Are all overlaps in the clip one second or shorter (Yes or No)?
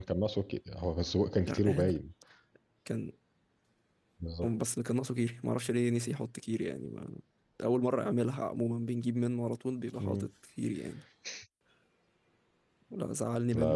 Yes